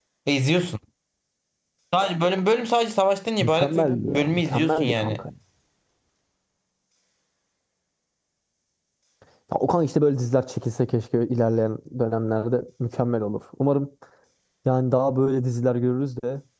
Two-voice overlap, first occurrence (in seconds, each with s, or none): 3.4 s